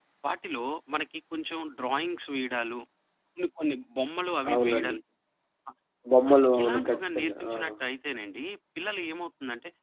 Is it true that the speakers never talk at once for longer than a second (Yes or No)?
No